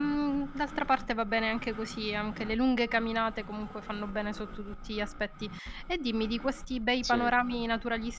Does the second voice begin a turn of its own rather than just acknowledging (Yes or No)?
No